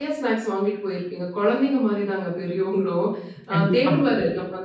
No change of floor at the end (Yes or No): Yes